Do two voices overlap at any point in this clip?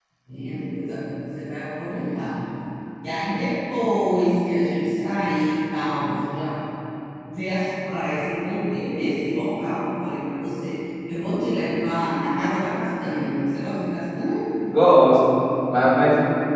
No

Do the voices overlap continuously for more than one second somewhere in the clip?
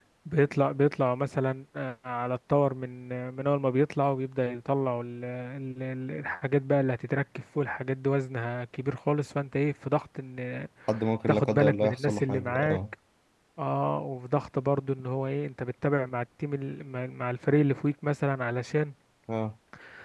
Yes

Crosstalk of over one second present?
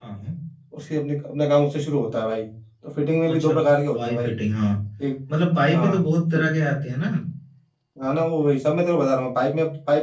No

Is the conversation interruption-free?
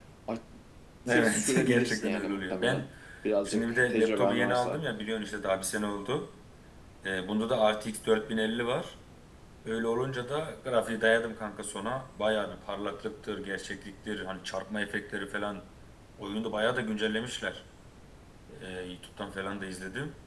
No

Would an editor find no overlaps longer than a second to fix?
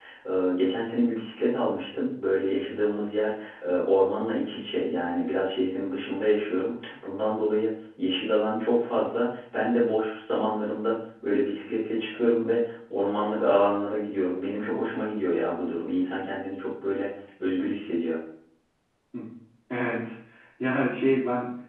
Yes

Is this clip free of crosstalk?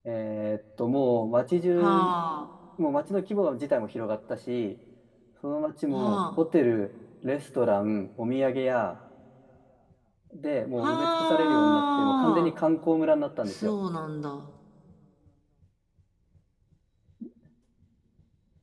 No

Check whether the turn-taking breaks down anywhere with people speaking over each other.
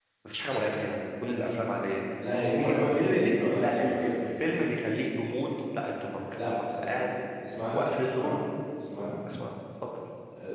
Yes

